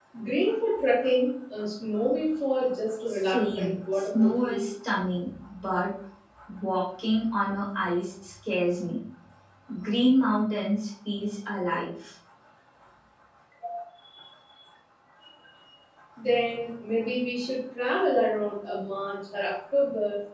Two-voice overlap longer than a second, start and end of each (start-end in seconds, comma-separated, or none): 3.1-4.7